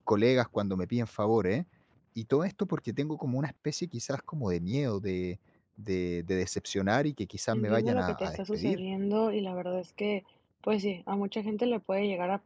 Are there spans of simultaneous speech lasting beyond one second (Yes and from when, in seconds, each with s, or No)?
Yes, from 7.5 s